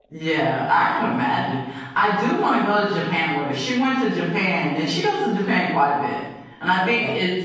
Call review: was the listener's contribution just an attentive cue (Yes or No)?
Yes